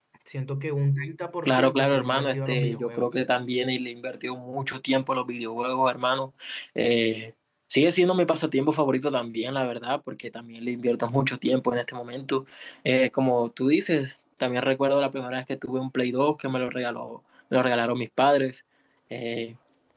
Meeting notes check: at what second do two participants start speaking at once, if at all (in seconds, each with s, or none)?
1.4 s